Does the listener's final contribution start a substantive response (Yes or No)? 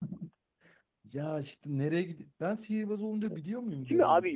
Yes